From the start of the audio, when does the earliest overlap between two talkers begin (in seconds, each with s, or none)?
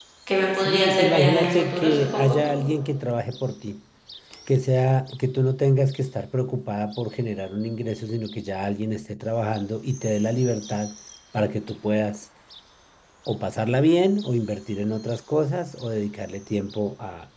0.6 s